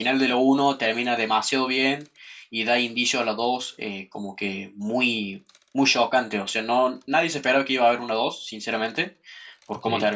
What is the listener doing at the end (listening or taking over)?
listening